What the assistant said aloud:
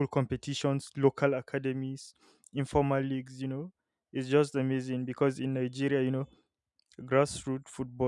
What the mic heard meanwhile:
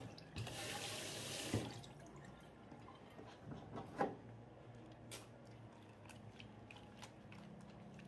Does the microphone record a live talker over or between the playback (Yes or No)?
No